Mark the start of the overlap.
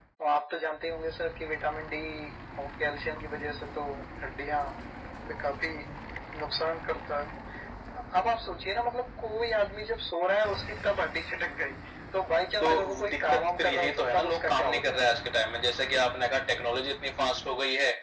13 s

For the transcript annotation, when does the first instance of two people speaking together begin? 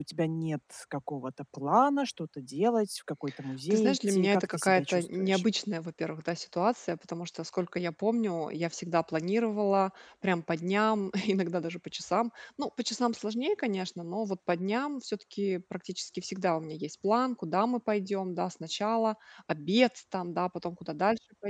4 s

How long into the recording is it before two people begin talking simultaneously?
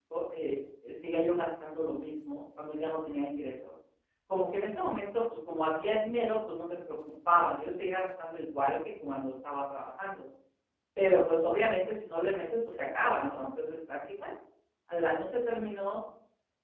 none

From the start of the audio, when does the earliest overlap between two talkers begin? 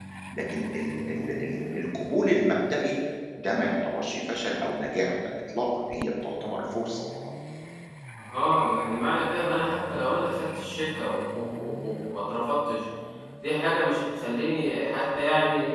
none

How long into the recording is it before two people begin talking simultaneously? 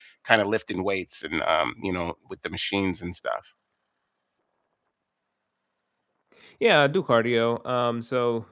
none

